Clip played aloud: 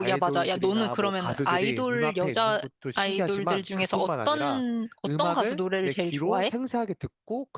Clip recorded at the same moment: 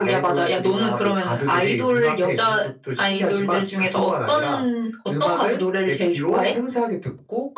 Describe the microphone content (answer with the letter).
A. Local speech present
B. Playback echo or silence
B